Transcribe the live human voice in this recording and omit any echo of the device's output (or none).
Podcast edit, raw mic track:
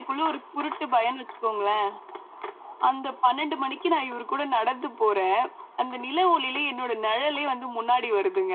none